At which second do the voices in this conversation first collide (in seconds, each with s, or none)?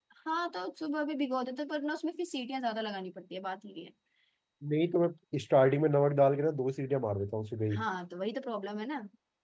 none